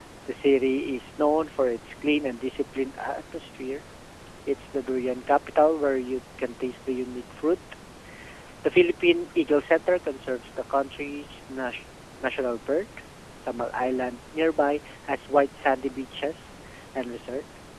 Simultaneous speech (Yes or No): No